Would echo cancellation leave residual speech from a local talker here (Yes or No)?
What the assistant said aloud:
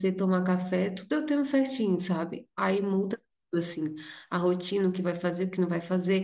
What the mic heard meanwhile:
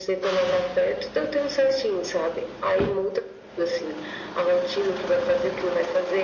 No